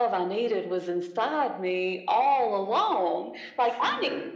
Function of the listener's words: listening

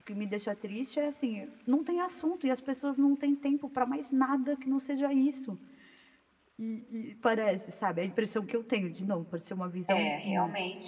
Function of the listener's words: taking over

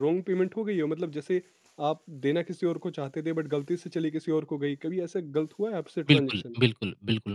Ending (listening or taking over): taking over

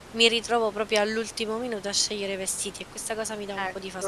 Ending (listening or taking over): taking over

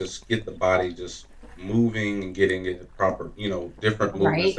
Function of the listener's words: taking over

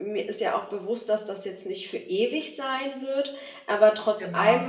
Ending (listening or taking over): listening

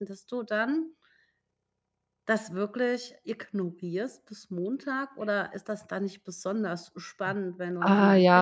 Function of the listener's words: taking over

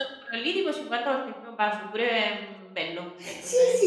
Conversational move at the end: taking over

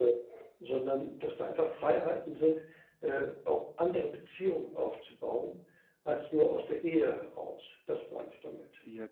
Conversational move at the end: taking over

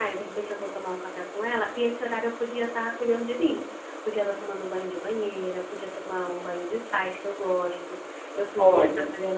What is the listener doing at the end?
listening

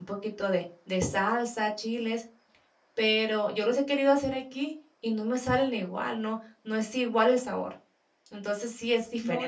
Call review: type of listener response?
taking over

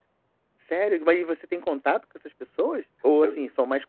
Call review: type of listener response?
listening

